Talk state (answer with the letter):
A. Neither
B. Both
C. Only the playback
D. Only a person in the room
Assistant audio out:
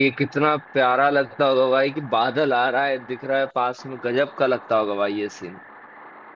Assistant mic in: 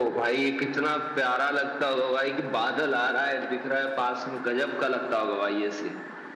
C